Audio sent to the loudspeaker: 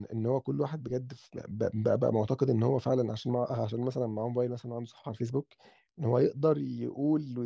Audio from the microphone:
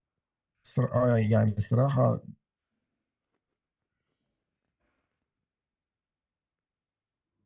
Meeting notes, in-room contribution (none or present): present